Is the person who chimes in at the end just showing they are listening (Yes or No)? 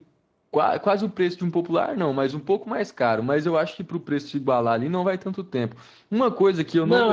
No